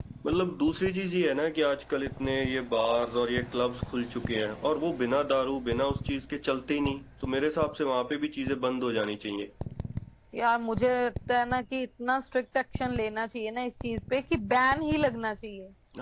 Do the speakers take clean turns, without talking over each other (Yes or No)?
Yes